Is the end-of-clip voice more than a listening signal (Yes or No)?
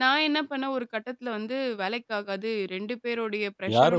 Yes